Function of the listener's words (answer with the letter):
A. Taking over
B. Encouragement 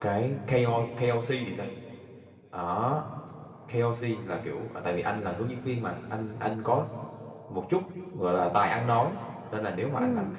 B